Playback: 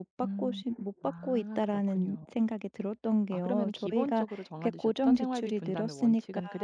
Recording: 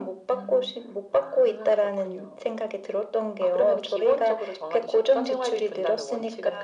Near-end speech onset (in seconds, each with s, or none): none